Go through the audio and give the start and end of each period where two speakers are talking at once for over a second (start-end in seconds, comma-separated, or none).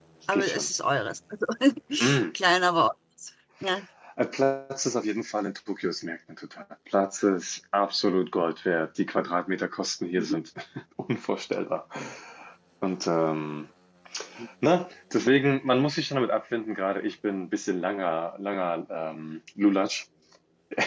none